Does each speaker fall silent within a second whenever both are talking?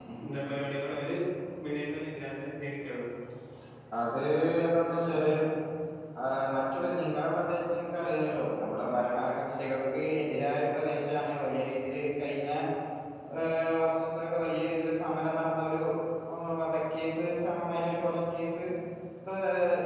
Yes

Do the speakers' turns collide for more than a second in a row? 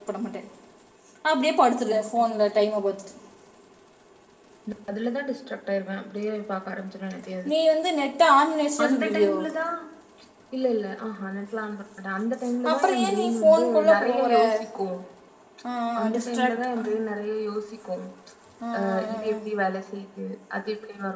Yes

